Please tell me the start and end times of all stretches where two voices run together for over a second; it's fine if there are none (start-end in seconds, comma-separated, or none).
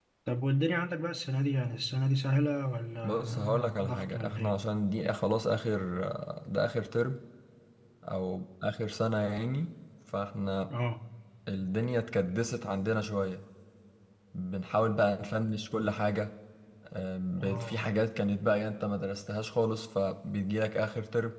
3.0-4.5